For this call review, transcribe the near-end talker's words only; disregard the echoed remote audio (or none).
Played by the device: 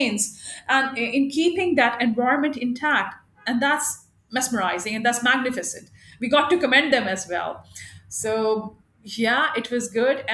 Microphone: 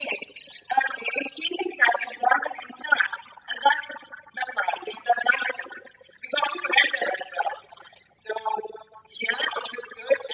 none